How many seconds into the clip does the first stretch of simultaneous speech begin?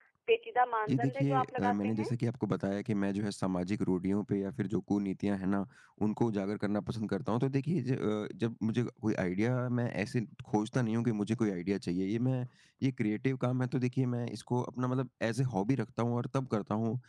1 s

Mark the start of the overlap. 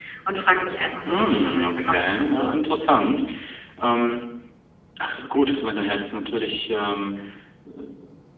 1 s

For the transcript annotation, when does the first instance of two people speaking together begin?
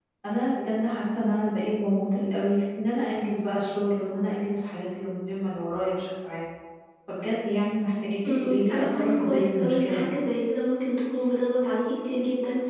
8 s

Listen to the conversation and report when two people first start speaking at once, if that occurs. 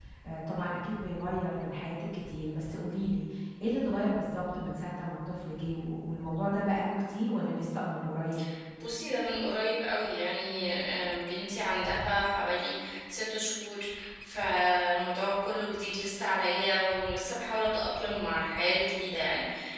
none

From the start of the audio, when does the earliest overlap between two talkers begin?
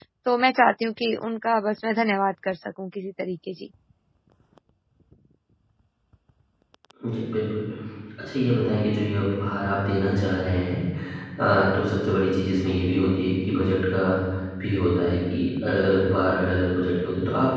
none

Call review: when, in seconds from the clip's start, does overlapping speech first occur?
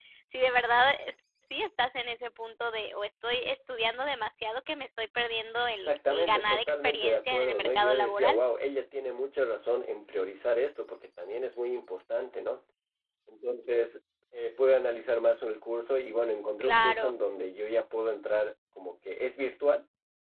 6 s

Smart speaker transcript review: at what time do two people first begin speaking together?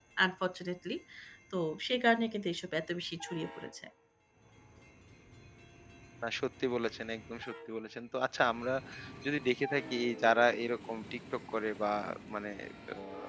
none

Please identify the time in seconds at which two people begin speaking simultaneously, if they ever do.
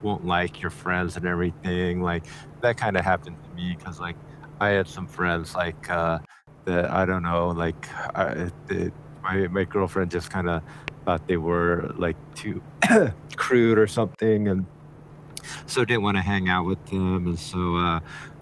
none

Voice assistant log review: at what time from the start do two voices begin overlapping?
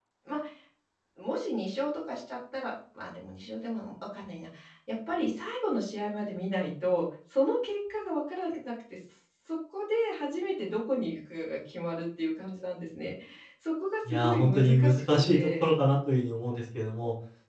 14 s

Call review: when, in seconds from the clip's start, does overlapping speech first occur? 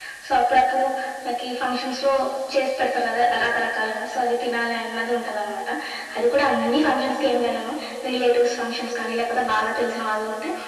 none

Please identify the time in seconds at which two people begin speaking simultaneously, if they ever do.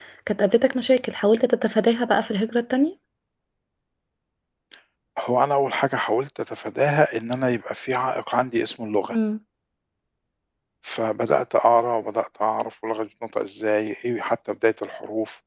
none

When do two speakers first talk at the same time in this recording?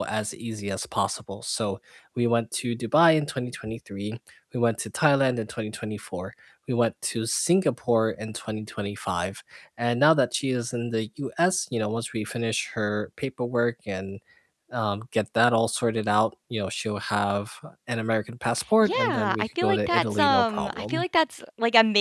19 s

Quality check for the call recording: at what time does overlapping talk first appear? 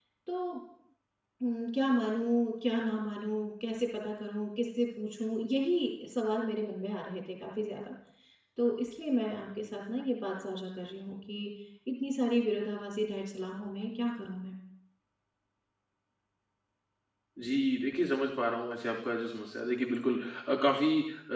none

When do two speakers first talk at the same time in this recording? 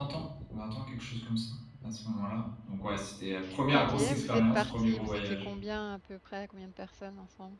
4 s

